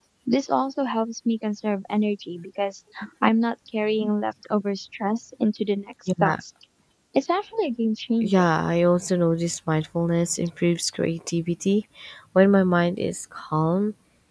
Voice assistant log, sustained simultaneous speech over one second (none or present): none